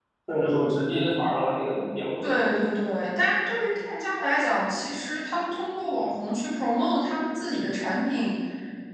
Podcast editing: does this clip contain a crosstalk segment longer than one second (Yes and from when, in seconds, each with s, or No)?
No